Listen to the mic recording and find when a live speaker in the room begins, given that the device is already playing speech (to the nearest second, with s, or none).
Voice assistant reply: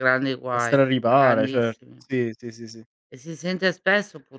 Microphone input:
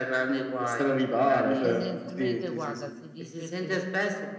2 s